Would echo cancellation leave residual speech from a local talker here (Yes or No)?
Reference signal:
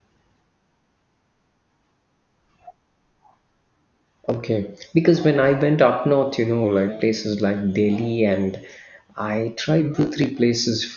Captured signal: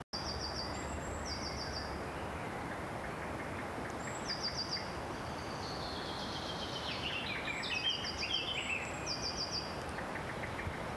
No